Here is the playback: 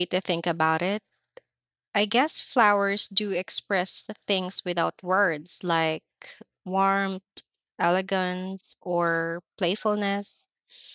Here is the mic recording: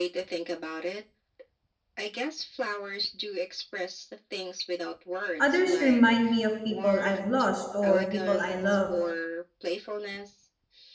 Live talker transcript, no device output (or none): others remind me of people I've lost or people I love.